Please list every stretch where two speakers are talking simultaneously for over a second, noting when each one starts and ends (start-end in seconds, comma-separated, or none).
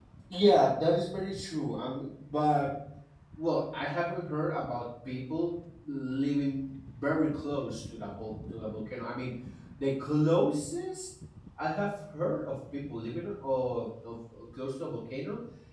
none